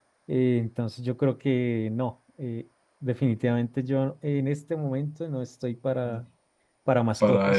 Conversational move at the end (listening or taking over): listening